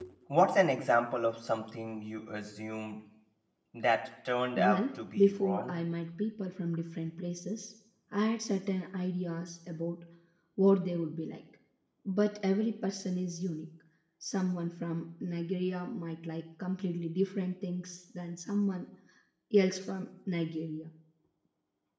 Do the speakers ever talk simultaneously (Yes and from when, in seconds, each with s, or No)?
Yes, from 4.5 s